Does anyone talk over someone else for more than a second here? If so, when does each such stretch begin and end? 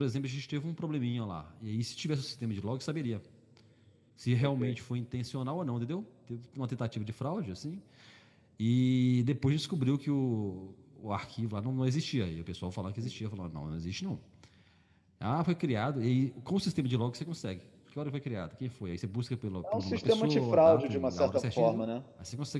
19.6-21.8

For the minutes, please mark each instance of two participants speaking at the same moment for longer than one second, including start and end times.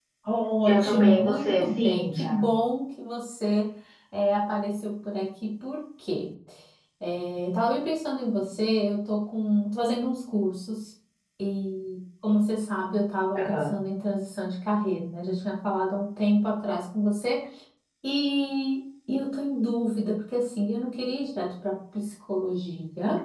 0.7-2.4

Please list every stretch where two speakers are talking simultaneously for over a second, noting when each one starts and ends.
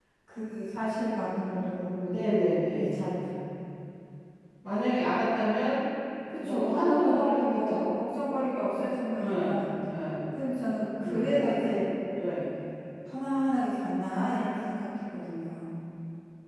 6.4-7.9

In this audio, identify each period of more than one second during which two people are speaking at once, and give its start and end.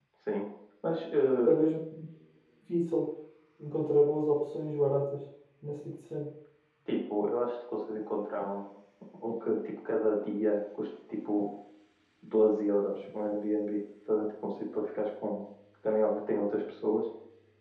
none

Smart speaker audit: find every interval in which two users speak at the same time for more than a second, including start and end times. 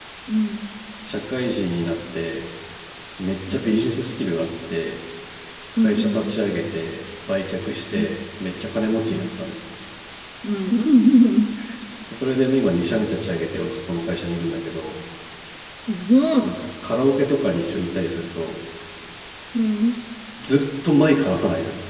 none

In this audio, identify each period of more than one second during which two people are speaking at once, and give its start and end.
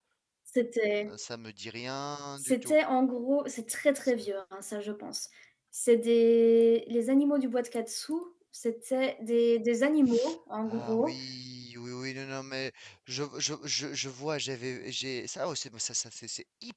none

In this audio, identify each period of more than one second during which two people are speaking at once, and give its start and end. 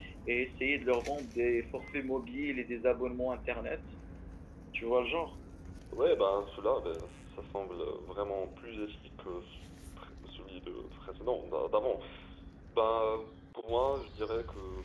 none

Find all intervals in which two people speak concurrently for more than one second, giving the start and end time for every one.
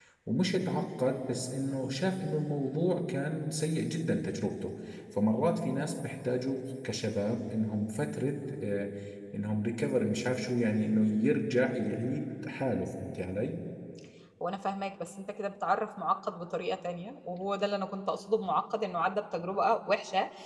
none

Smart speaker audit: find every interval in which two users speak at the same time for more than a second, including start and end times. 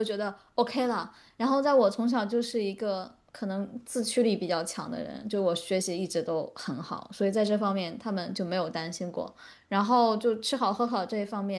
none

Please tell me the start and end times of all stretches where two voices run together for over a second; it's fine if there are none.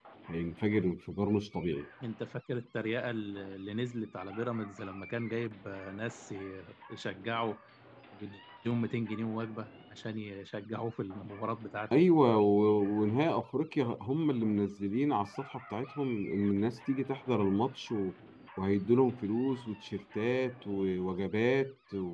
none

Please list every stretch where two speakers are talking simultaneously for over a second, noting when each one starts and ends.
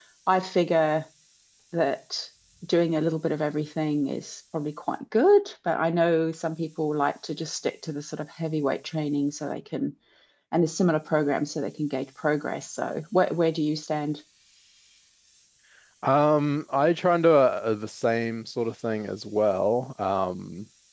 none

